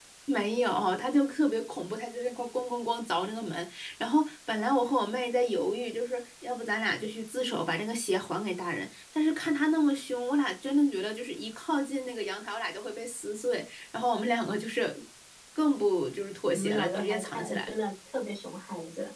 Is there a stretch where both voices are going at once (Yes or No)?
Yes